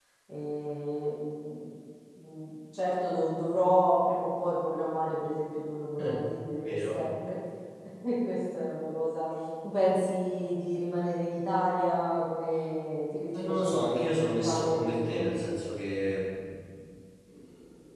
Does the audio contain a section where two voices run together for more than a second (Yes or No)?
Yes